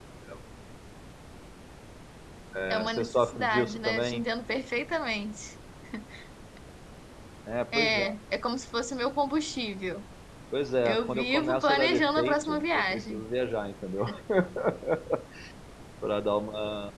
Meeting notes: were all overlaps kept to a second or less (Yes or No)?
No